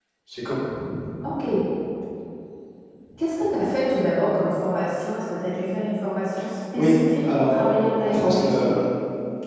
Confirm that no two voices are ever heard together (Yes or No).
No